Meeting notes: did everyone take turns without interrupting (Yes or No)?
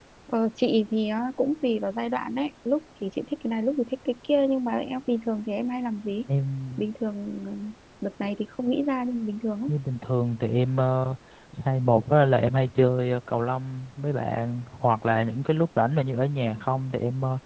Yes